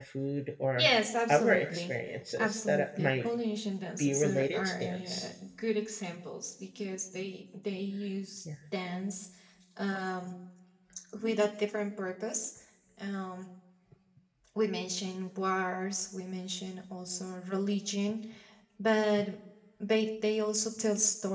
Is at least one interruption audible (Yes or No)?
Yes